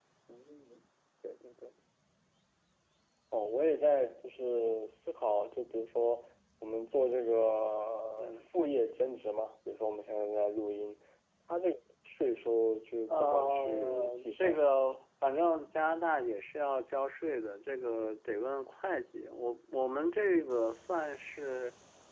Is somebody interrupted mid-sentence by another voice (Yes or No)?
Yes